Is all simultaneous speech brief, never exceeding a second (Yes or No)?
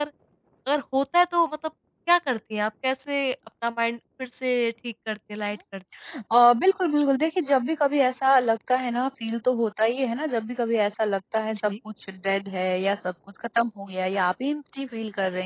Yes